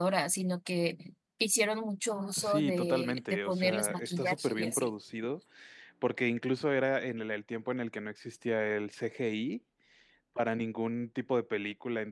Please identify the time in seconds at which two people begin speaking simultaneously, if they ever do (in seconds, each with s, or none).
2.3 s